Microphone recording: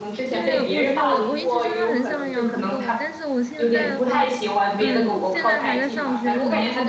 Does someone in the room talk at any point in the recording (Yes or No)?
Yes